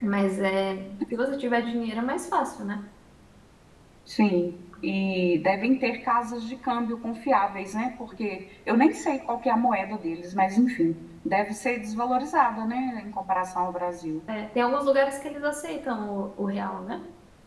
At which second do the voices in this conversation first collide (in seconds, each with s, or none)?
none